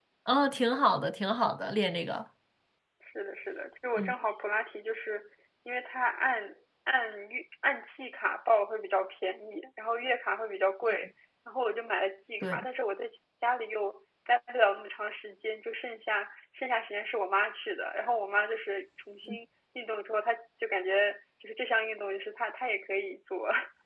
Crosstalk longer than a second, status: none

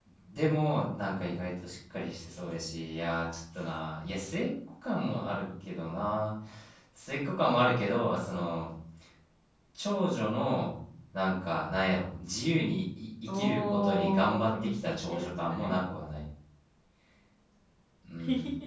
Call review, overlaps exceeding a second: present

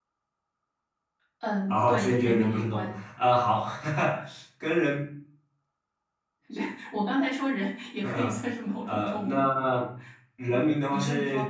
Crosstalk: present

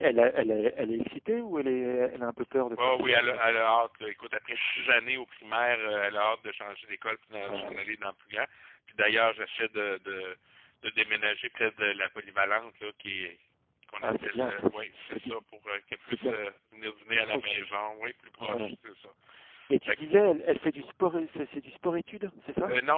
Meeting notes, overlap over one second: present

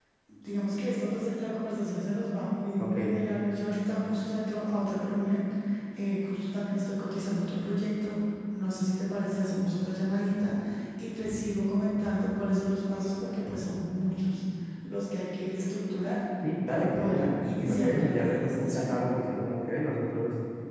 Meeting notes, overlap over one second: present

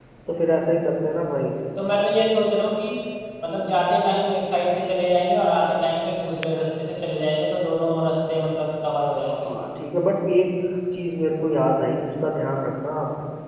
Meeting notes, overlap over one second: none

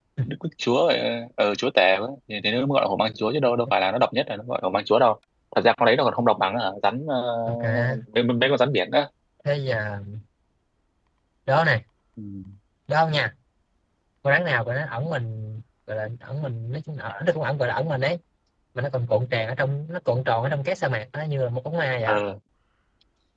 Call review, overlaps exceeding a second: none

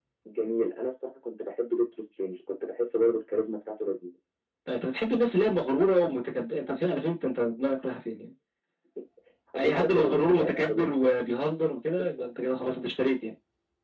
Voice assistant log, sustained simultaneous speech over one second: present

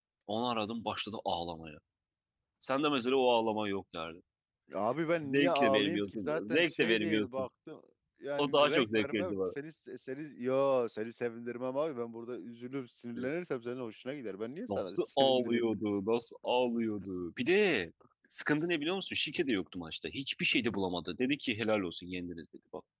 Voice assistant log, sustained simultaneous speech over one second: present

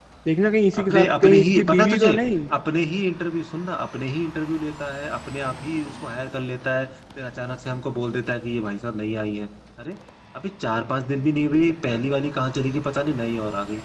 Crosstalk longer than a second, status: present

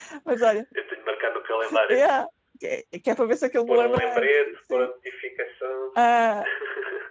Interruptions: present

